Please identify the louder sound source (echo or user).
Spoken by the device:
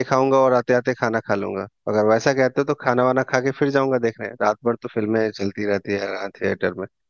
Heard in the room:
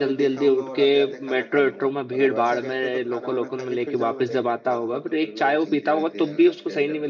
user